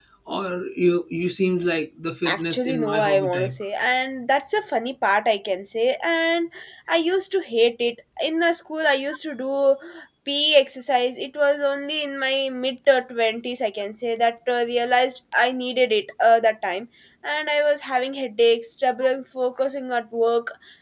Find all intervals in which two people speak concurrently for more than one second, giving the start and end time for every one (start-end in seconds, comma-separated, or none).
2.3-3.6